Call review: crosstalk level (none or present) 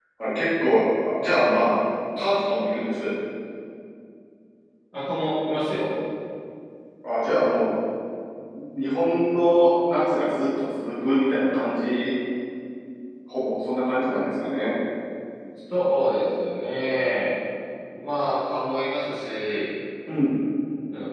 none